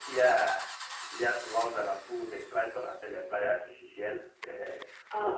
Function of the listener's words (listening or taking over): listening